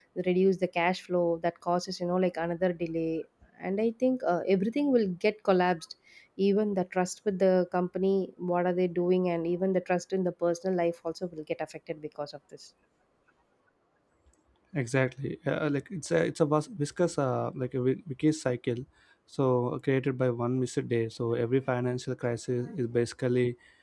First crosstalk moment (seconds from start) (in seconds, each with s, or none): none